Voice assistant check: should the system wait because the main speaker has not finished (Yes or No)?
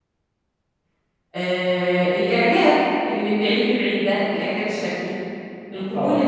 Yes